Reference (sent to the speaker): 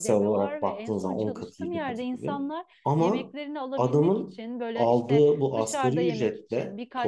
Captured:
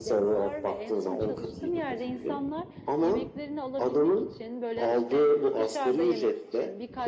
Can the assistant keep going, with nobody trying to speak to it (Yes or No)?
Yes